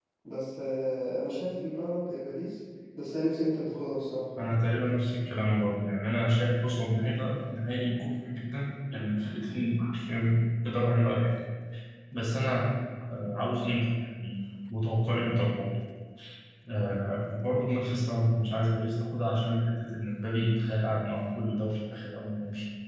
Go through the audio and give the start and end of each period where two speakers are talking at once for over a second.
none

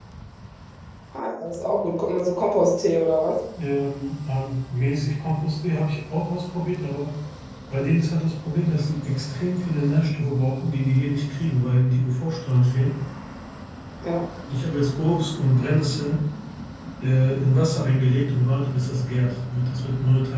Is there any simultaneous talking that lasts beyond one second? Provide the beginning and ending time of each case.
none

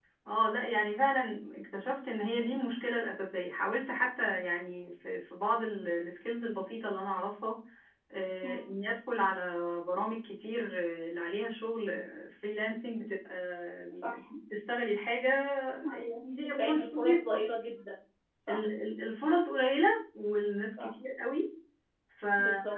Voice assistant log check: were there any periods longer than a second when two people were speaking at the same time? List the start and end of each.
15.9-17.4

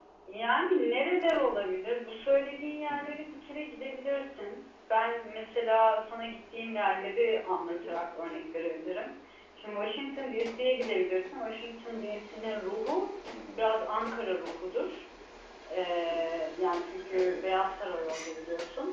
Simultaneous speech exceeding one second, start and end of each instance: none

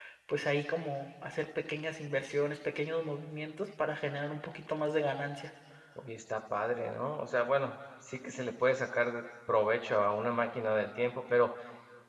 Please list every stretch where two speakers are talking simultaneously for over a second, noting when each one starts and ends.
none

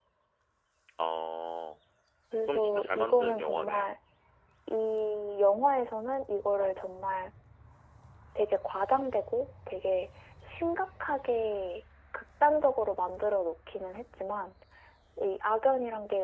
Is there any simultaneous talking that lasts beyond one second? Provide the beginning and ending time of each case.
2.5-4.0

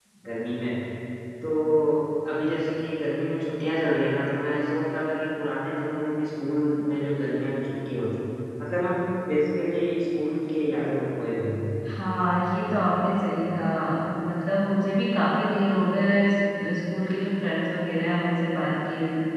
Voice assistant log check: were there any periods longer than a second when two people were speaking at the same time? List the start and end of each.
none

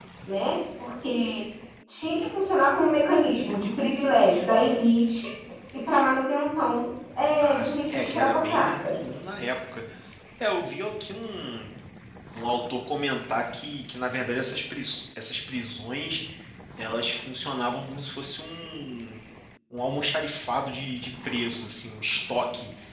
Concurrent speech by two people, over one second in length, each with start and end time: 7.4-8.9

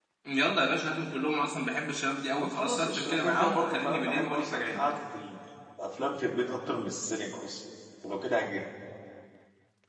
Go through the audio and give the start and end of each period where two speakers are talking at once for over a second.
2.4-4.9

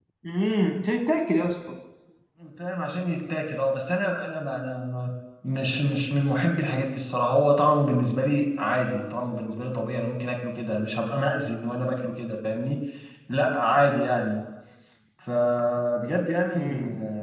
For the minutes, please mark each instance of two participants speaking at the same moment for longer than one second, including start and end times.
none

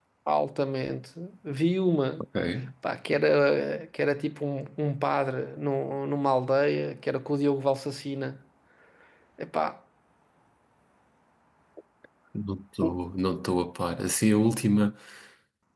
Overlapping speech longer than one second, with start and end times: none

